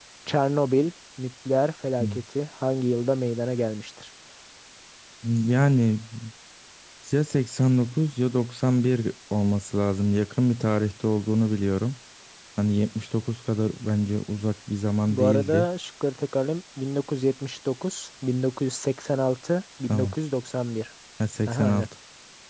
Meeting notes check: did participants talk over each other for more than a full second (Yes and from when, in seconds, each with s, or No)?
No